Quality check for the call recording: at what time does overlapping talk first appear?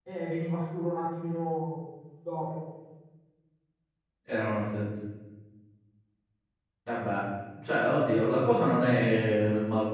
none

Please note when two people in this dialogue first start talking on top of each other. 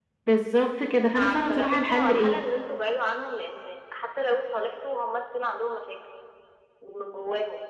0.9 s

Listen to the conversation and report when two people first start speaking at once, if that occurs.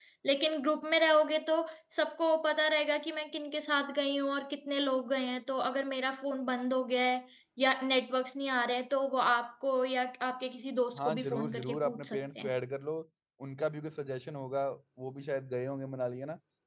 10.9 s

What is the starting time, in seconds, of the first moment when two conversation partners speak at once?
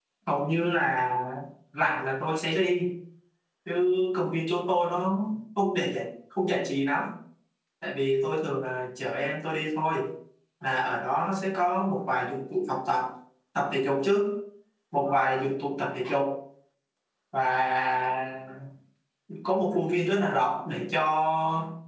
none

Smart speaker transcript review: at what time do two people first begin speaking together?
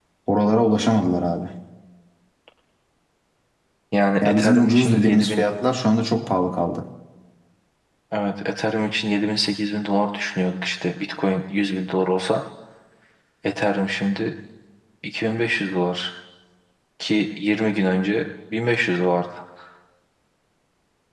4.2 s

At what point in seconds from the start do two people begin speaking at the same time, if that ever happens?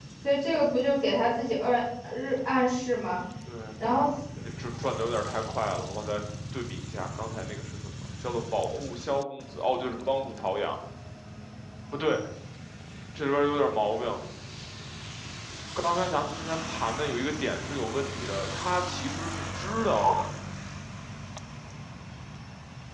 none

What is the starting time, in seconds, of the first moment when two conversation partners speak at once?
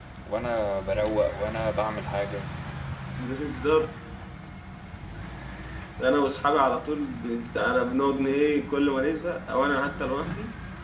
none

